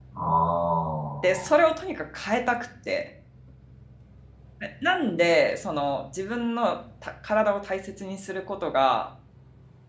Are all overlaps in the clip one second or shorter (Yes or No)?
Yes